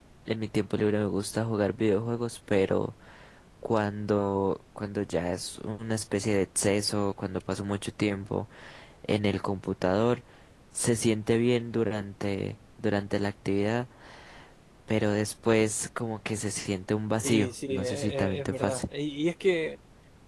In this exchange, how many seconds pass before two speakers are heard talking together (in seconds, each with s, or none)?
17.2 s